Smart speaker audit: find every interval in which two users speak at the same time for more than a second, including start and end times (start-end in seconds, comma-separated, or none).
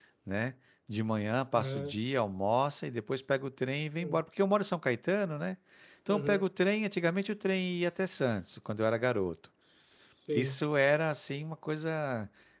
none